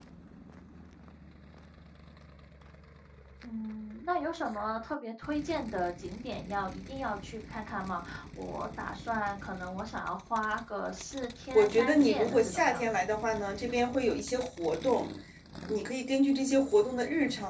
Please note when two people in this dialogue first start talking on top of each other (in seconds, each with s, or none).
11.5 s